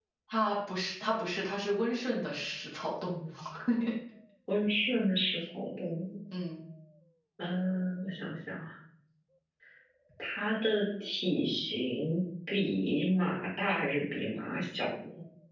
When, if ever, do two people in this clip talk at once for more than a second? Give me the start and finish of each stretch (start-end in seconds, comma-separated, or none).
none